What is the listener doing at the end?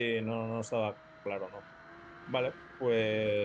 taking over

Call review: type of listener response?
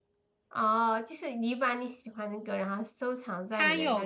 taking over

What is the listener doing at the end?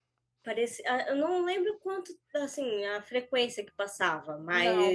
listening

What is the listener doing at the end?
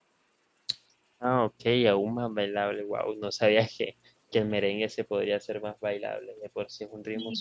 taking over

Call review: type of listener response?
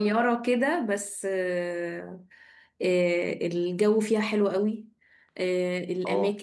listening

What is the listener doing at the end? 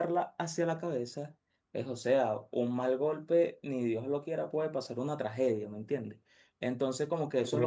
listening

